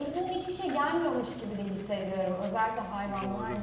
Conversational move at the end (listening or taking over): taking over